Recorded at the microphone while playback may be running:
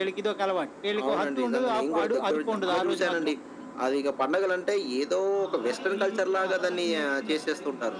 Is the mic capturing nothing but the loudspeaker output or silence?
No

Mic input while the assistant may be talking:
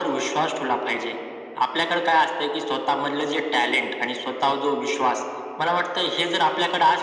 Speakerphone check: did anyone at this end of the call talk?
No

